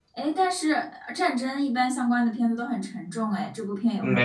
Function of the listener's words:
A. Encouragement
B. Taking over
B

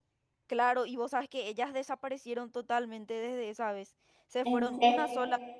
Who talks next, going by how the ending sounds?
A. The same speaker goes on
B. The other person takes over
A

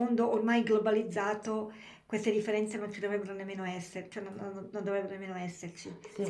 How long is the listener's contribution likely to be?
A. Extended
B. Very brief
A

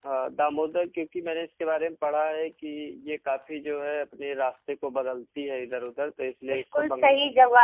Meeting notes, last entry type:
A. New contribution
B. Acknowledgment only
A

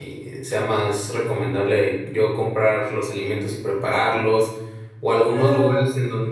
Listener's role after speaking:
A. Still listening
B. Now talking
A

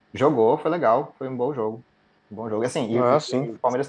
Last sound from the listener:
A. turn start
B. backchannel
B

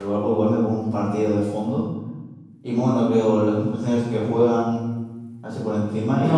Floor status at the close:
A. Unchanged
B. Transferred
B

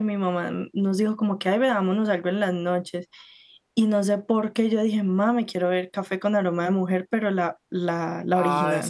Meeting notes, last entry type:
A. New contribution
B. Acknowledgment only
A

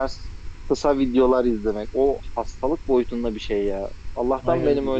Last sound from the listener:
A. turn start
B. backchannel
B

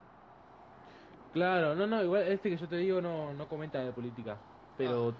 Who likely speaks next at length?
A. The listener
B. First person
B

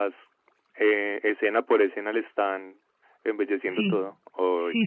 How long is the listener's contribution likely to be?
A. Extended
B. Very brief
A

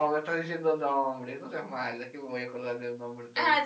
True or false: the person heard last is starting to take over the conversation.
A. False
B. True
B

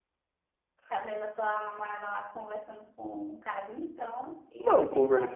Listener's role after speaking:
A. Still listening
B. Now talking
B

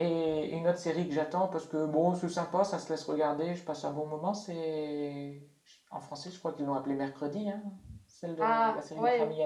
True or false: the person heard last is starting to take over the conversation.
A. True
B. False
A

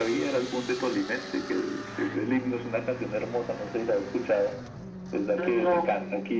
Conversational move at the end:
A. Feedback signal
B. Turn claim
A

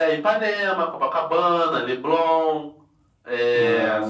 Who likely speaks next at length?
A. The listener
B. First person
B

